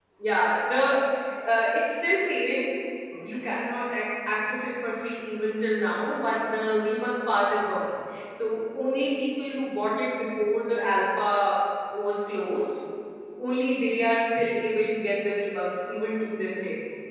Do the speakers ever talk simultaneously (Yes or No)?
No